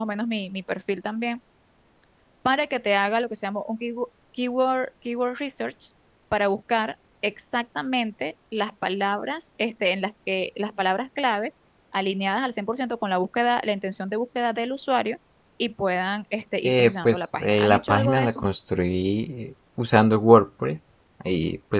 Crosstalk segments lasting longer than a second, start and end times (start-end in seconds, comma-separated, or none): 16.6-18.4